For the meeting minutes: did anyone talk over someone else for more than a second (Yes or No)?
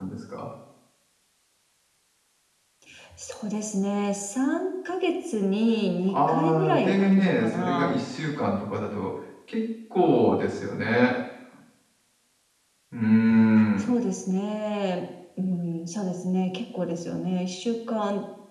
Yes